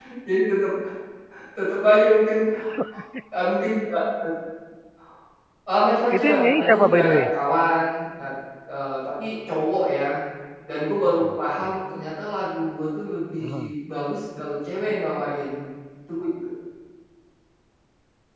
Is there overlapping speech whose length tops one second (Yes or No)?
Yes